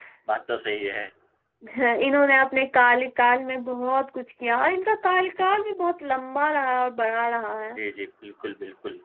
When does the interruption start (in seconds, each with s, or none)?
none